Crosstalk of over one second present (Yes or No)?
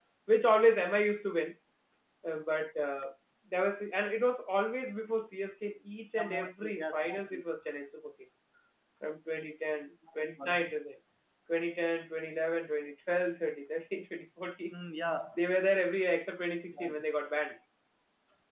Yes